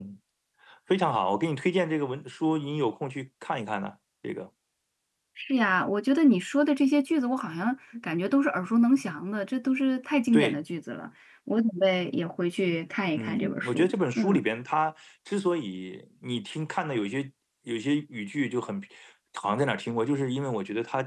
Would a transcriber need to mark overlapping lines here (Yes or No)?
Yes